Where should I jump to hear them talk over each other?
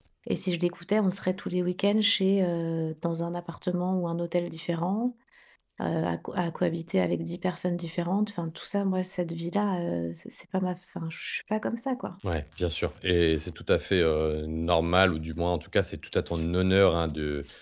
none

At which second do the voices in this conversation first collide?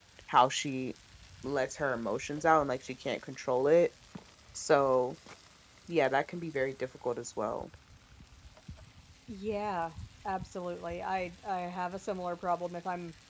none

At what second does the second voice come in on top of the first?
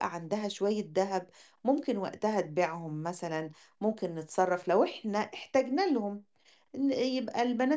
none

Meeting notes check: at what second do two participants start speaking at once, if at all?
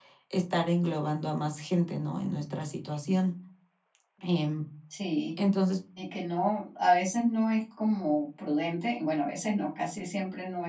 none

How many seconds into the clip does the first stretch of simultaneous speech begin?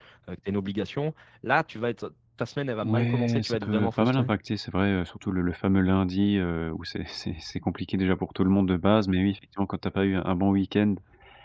2.8 s

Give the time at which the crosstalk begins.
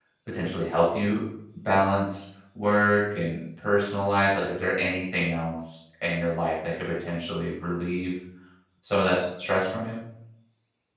none

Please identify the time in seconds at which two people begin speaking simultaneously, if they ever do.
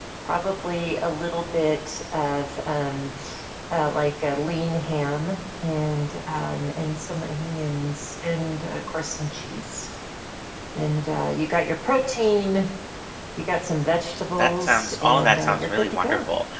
14.4 s

